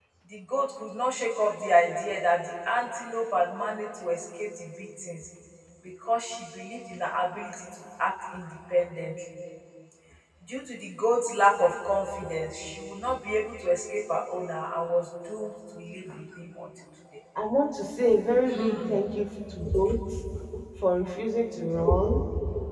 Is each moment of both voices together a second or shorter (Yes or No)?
Yes